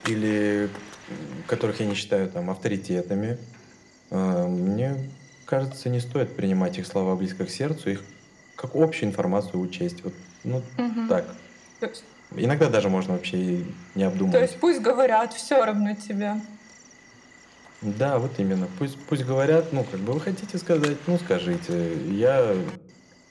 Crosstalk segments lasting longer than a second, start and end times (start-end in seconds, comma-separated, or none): none